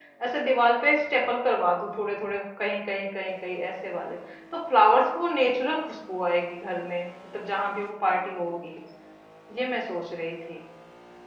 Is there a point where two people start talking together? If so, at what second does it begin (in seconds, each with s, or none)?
none